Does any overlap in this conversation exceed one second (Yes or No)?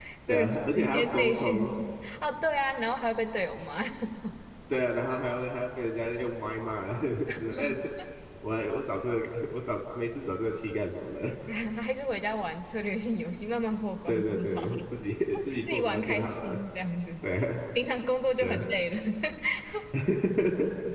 Yes